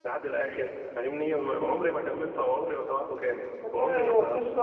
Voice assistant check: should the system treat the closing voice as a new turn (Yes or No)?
Yes